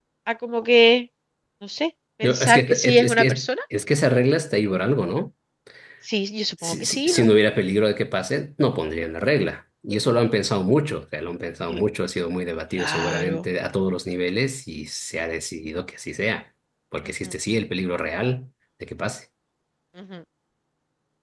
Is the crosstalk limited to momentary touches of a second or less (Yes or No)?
No